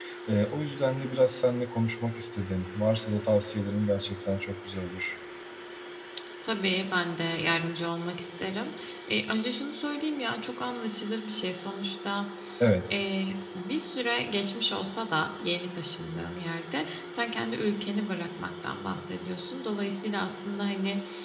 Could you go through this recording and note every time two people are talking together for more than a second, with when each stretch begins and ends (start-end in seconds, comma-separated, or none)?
none